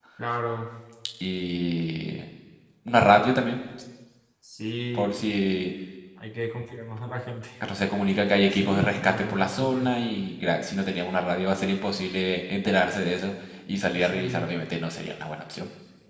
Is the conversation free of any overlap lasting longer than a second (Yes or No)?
No